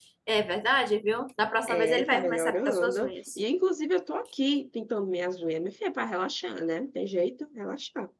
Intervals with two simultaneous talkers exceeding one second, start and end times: 1.7-3.4

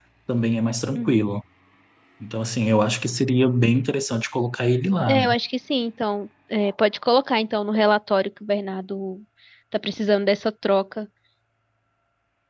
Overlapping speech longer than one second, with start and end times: none

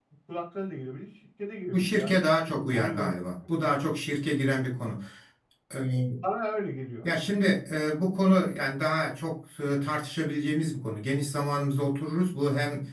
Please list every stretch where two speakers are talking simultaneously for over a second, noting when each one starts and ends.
none

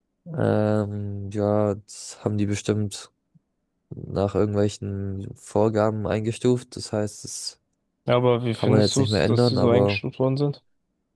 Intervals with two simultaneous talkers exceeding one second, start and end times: 8.5-10.0

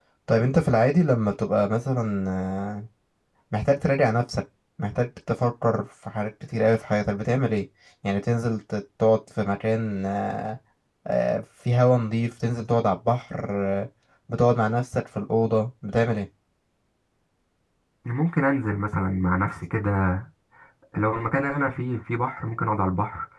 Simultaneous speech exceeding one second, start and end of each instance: none

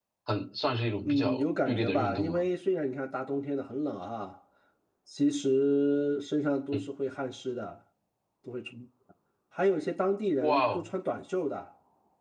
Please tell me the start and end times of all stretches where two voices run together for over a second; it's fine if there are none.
1.0-2.4

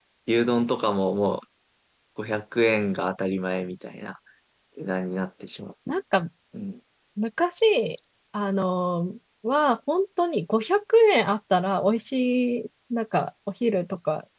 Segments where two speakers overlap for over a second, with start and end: none

